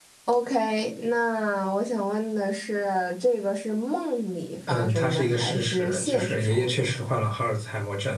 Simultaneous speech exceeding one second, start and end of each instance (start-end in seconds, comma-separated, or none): 4.7-7.2